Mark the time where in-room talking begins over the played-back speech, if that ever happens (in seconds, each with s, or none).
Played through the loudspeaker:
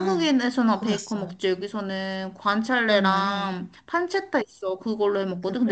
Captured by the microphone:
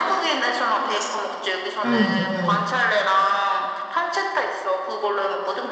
1.8 s